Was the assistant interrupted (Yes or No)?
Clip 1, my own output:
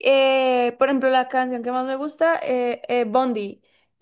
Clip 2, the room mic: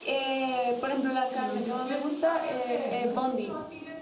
Yes